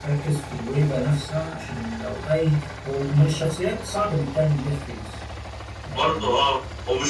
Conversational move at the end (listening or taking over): taking over